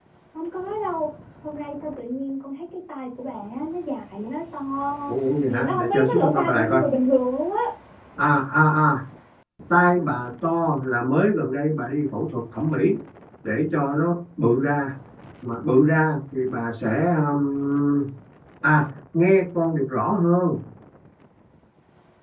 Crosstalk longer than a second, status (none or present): present